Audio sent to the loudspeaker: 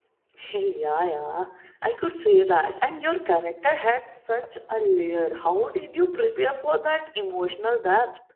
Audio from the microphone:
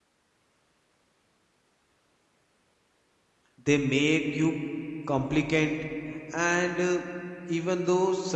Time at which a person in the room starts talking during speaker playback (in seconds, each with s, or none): 3.6 s